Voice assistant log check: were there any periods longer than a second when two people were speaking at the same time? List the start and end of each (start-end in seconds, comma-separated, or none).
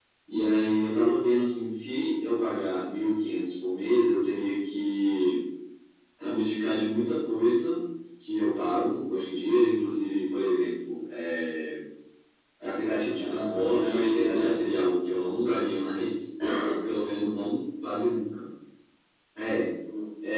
13.2-14.5